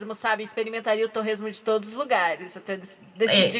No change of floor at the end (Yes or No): No